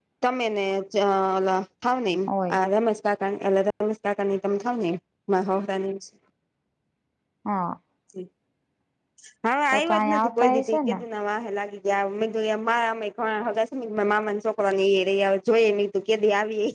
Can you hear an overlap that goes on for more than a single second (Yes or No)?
Yes